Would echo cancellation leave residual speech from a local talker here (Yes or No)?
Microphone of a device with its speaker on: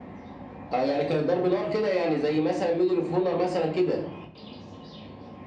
No